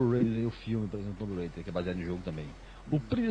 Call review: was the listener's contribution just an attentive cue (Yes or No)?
Yes